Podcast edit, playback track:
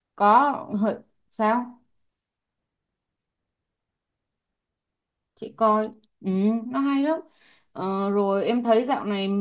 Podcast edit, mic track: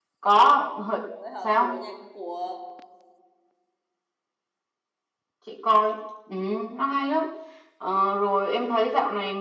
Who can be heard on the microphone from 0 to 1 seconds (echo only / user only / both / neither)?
echo only